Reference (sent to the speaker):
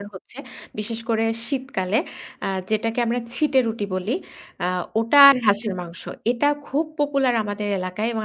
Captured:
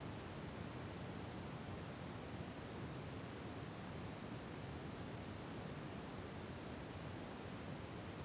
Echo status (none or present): none